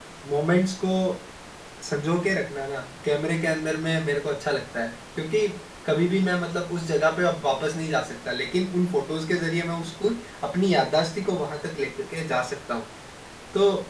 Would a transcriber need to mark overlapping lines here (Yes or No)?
No